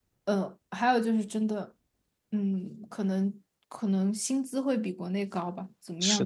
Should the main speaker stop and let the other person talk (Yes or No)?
Yes